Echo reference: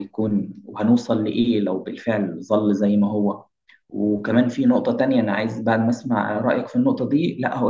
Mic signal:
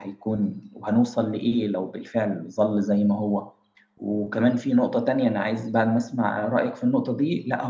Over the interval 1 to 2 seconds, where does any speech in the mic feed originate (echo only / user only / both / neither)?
echo only